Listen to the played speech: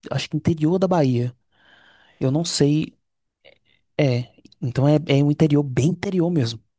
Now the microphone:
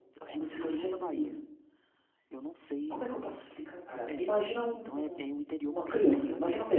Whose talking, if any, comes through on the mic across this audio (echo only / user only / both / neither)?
both